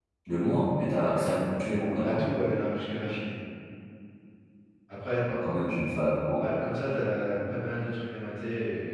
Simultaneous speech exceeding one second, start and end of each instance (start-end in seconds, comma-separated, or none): none